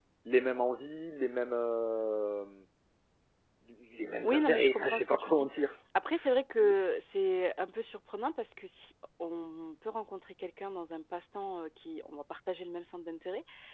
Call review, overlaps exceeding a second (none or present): present